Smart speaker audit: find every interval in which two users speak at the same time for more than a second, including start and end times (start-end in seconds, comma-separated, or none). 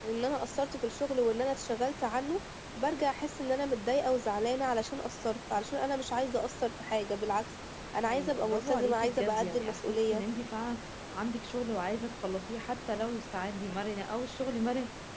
8.1-10.2